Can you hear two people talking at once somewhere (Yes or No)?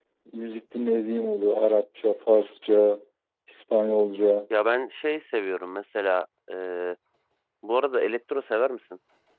No